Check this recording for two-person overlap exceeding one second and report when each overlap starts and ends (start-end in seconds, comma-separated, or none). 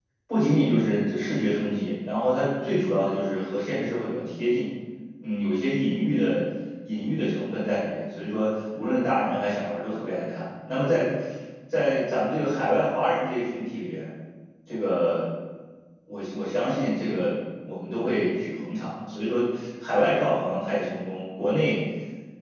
none